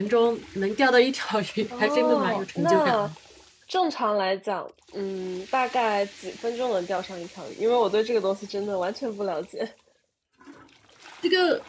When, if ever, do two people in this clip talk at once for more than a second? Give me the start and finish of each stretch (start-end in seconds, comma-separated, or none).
1.8-3.0